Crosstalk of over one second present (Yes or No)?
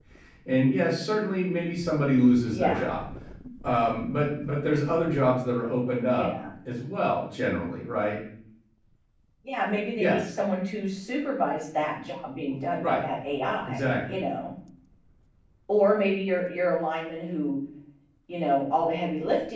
No